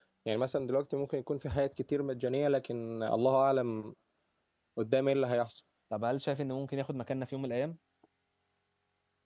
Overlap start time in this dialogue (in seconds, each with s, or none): none